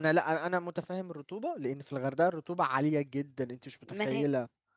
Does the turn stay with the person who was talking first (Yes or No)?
No